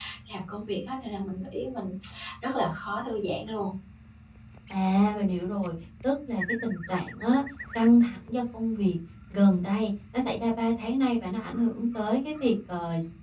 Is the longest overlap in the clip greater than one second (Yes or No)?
No